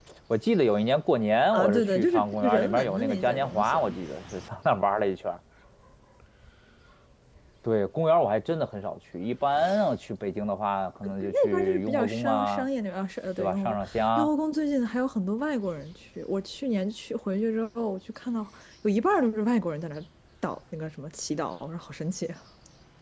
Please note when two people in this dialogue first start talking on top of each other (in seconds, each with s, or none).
1.5 s